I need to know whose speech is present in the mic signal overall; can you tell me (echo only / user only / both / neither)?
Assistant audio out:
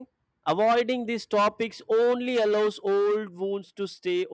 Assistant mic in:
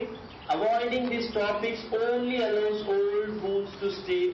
echo only